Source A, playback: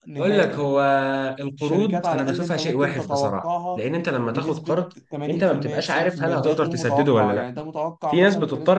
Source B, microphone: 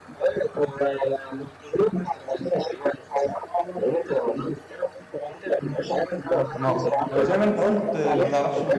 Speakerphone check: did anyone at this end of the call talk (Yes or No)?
Yes